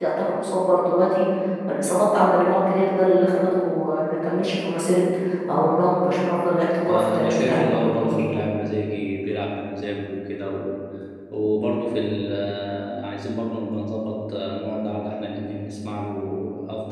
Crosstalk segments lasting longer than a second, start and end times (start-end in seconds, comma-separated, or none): 6.9-8.2